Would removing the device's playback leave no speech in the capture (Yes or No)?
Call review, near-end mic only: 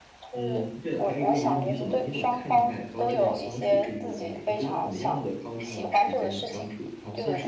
No